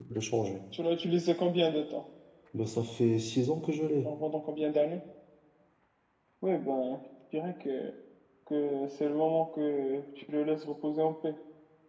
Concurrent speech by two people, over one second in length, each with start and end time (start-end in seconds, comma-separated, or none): none